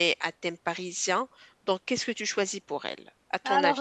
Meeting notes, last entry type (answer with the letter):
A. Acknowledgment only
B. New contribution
B